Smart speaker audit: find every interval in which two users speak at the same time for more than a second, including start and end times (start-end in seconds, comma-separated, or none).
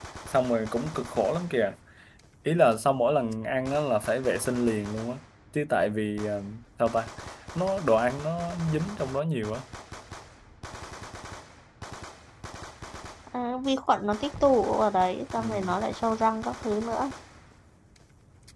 none